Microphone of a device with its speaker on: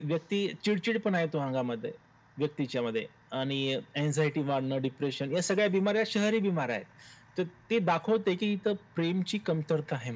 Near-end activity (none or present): none